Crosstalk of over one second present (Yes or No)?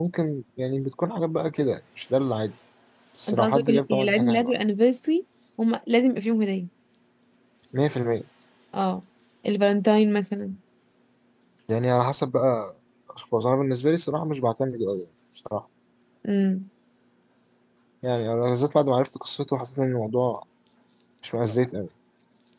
Yes